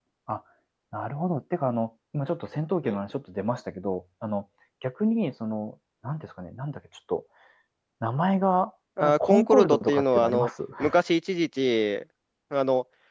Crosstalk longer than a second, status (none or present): present